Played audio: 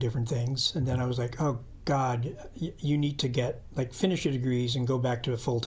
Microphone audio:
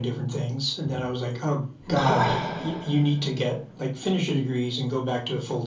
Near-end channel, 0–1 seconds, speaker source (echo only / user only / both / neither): echo only